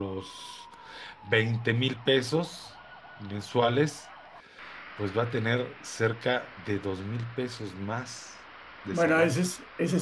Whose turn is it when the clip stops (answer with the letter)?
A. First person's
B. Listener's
B